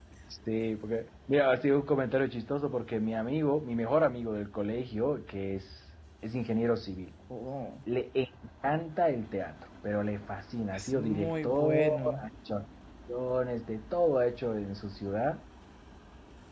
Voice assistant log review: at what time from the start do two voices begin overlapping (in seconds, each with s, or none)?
10.7 s